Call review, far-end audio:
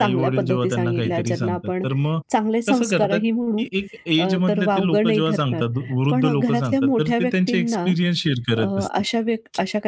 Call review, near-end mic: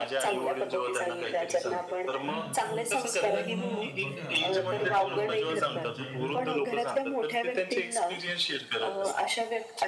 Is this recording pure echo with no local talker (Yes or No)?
No